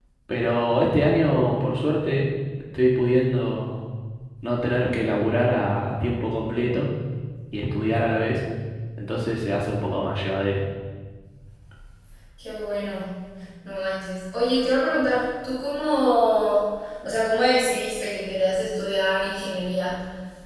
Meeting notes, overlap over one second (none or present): none